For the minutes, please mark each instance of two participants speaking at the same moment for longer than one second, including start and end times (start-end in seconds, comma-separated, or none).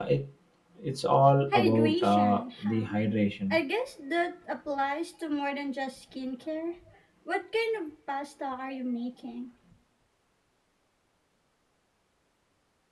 1.5-3.0